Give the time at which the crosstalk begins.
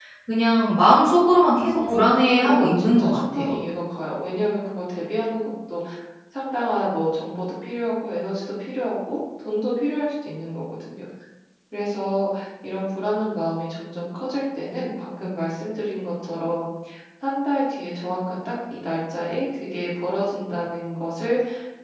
2 s

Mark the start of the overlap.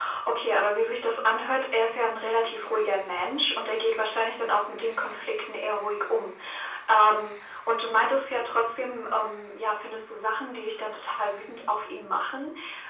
none

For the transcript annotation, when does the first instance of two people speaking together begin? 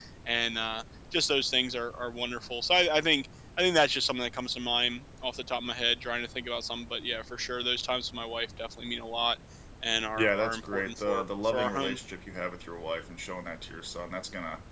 10 s

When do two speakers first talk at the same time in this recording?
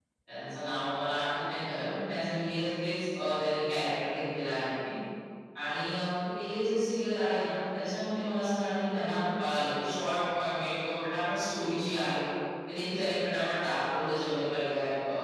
none

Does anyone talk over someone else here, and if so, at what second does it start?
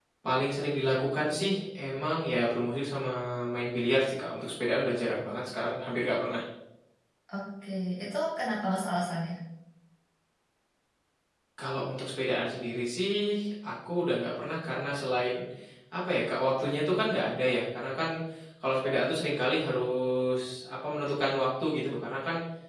none

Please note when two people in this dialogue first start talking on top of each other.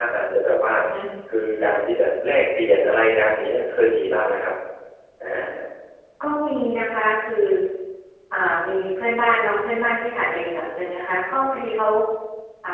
none

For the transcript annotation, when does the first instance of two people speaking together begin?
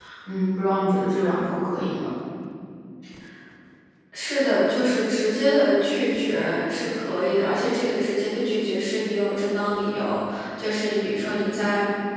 none

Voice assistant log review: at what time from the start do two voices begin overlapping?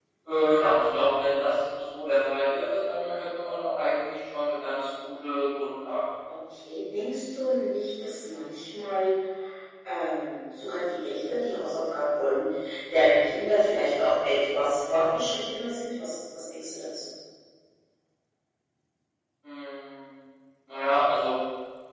none

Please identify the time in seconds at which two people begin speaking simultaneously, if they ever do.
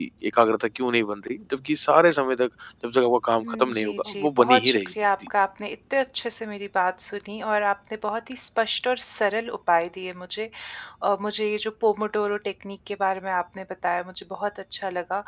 3 s

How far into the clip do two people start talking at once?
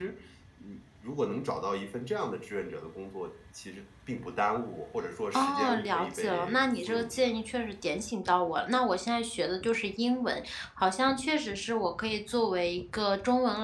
5 s

